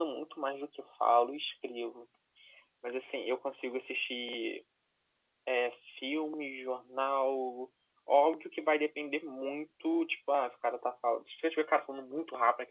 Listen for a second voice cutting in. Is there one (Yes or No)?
No